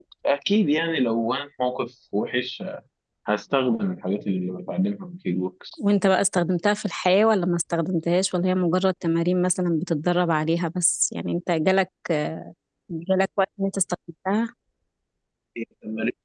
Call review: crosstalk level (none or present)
none